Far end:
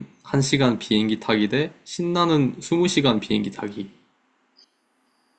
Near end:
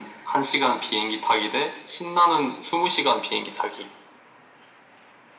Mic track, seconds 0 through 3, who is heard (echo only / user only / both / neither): echo only